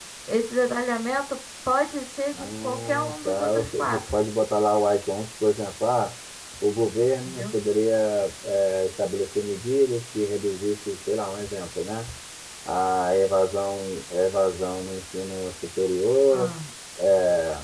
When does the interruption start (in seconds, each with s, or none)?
2.4 s